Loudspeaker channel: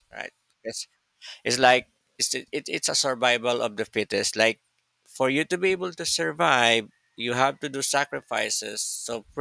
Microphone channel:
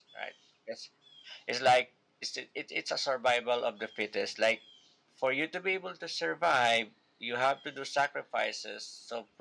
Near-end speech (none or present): none